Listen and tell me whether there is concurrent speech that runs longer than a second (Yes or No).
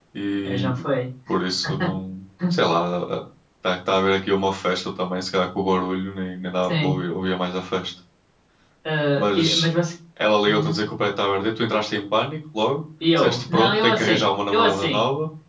Yes